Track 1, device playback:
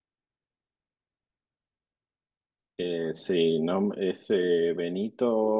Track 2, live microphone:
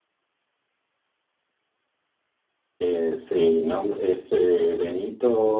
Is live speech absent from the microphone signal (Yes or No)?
Yes